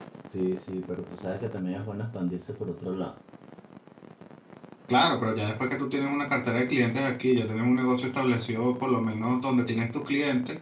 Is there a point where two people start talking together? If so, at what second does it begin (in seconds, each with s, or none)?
none